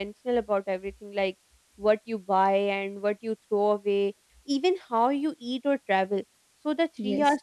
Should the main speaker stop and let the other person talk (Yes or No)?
No